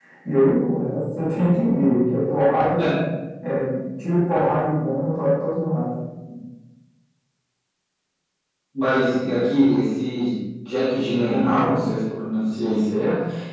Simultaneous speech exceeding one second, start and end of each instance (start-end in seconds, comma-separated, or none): none